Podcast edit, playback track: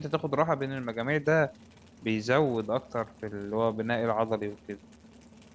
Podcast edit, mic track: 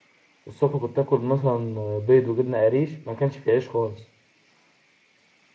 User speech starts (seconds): 0.5 s

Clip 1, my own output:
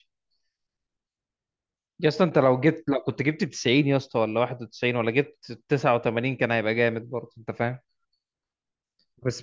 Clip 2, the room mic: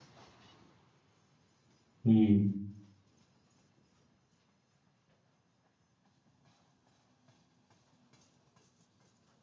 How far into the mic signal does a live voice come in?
2.0 s

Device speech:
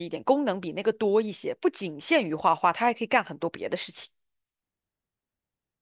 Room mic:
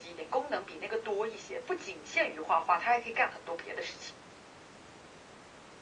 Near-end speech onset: none

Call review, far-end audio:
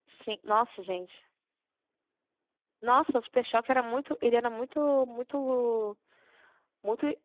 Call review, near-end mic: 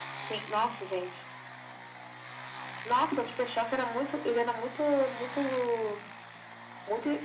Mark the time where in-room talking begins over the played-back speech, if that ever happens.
none

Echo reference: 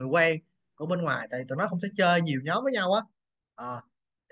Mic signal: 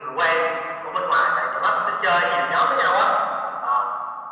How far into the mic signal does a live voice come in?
none

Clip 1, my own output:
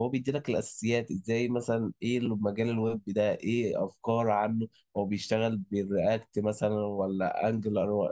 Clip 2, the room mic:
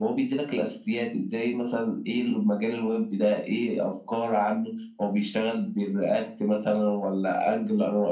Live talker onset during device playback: none

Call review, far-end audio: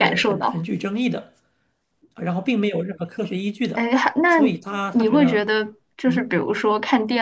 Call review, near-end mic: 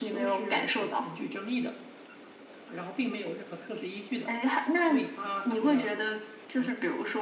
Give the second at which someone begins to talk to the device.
none

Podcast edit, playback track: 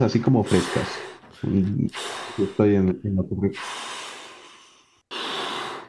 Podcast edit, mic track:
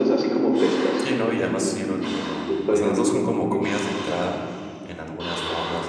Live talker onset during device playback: 1.0 s

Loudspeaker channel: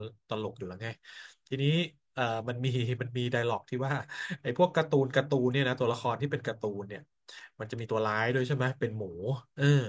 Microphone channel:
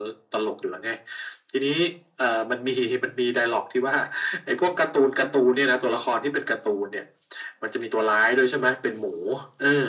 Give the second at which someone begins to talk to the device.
none

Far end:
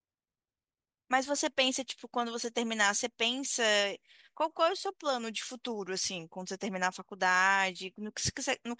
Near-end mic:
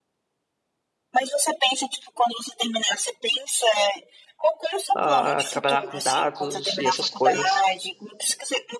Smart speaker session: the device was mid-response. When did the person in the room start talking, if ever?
5.0 s

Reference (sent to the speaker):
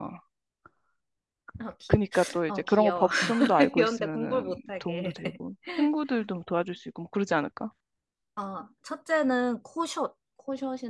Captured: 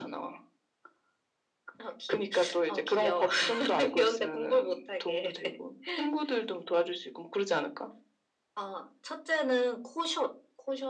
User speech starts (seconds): none

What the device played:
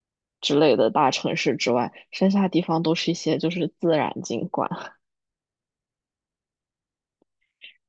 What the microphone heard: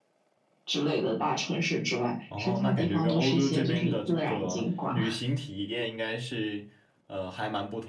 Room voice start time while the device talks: 2.3 s

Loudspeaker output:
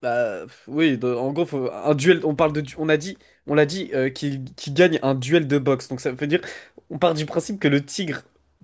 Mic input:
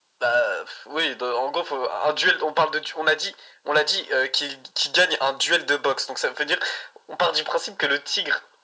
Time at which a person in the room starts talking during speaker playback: none

